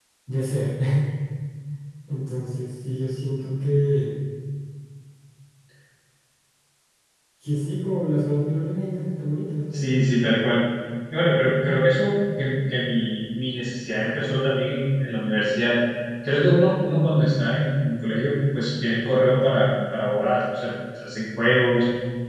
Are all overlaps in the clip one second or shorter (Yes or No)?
Yes